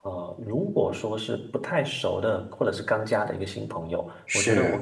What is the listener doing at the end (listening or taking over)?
listening